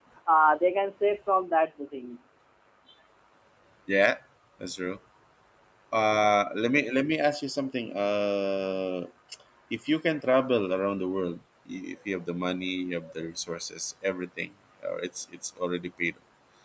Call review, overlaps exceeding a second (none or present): none